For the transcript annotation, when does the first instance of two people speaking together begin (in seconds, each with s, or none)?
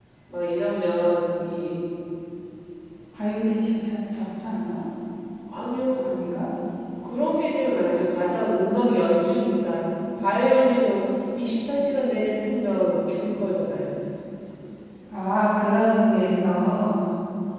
none